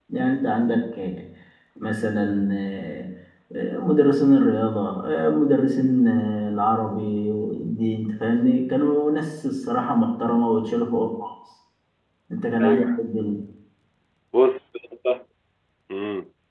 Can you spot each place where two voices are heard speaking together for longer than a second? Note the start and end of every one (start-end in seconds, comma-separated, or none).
none